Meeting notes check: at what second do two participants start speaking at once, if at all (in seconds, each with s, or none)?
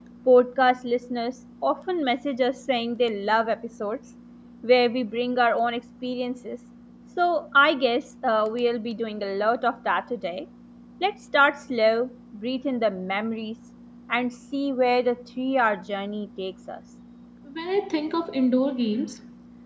none